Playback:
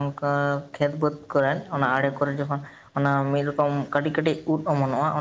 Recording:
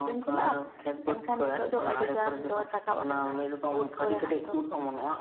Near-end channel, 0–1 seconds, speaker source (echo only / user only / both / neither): both